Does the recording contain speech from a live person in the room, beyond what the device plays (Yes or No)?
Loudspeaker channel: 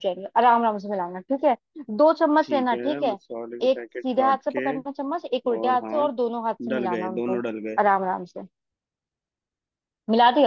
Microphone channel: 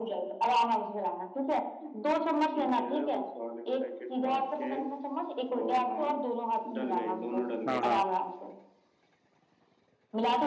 Yes